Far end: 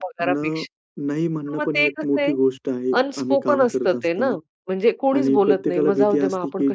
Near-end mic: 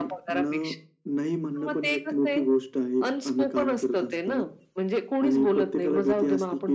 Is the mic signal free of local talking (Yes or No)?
Yes